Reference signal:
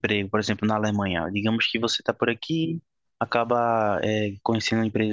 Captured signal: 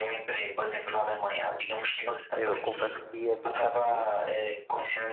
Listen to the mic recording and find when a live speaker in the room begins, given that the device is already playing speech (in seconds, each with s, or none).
2.4 s